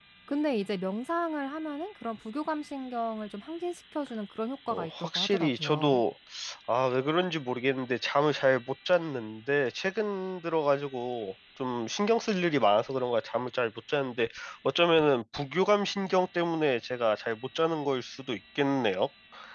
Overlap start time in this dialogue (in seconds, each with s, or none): 4.7 s